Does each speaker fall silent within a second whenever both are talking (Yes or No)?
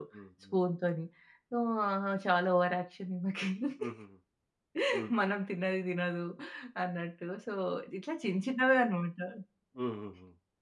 Yes